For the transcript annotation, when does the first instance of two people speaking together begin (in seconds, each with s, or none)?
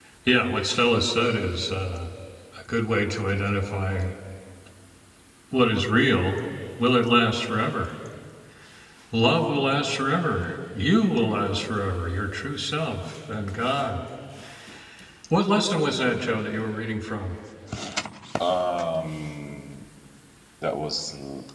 none